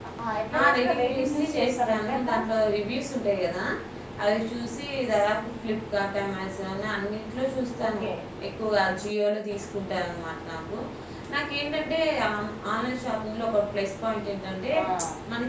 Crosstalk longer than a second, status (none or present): present